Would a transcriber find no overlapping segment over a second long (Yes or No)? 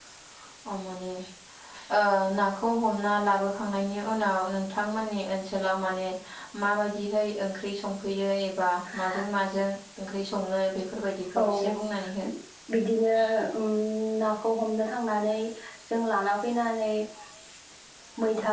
Yes